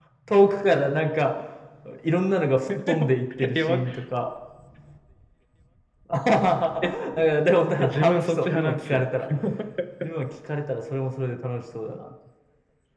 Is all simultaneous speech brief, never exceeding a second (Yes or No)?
No